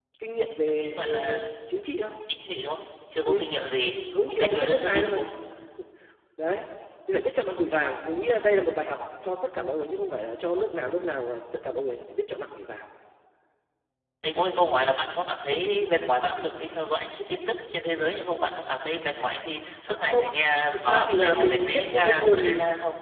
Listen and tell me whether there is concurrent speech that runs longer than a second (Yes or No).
Yes